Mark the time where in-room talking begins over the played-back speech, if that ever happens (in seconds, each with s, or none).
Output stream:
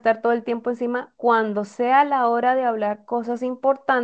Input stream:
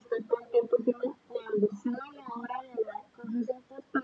none